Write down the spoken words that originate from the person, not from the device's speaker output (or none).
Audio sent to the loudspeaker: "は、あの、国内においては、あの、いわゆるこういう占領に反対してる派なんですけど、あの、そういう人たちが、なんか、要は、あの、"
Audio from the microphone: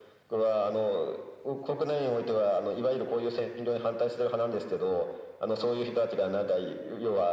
none